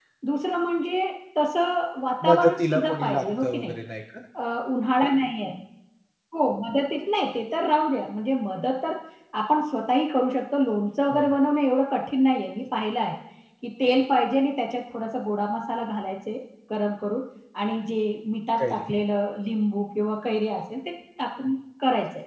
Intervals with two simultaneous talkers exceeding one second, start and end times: 2.3-3.7

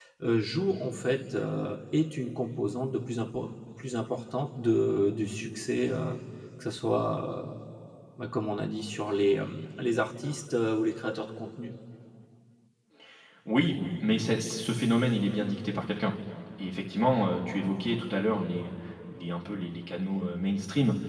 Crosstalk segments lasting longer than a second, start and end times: none

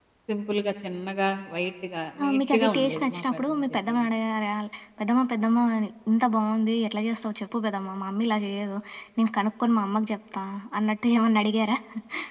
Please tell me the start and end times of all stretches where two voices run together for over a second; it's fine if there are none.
2.2-4.1

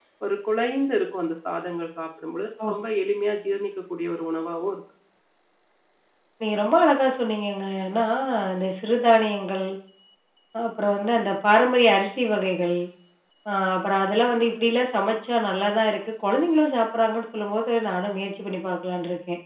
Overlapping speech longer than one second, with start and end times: none

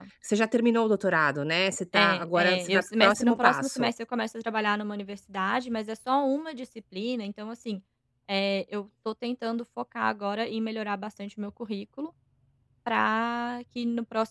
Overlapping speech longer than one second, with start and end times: 1.9-3.9

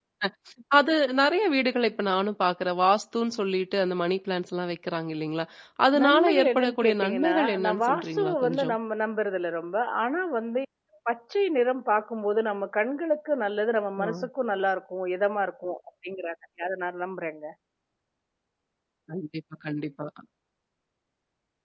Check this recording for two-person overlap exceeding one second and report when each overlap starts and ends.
6.0-8.8

